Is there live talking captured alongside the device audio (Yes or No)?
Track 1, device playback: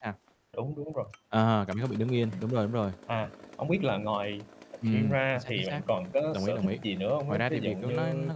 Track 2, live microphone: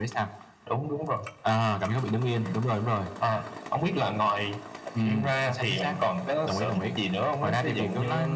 No